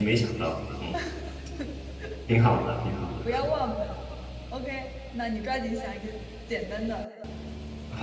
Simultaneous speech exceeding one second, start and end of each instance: none

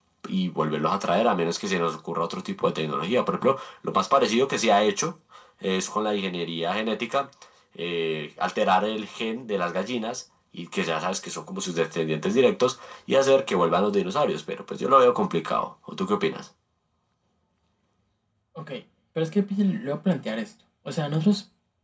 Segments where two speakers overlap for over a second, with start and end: none

